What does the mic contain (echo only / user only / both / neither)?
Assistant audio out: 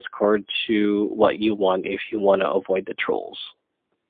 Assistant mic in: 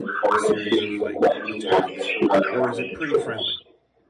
both